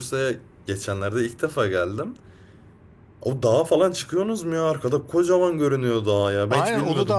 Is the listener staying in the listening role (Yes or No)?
No